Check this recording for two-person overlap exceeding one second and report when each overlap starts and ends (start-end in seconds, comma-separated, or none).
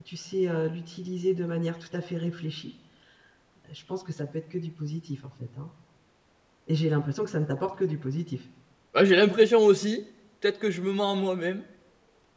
none